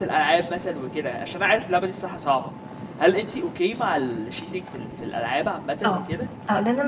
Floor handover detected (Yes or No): Yes